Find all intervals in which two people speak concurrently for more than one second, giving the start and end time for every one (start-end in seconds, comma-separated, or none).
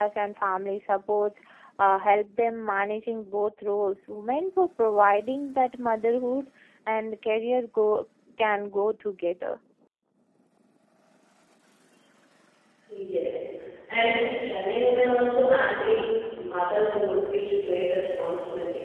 none